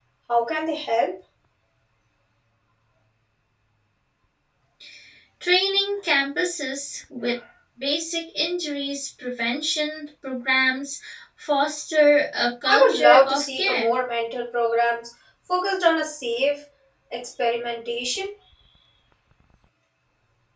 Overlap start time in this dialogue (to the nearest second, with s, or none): 13 s